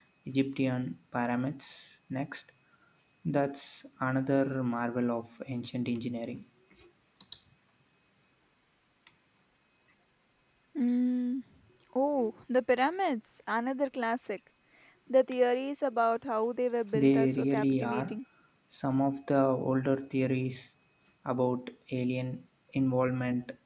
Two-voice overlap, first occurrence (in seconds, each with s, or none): 16.9 s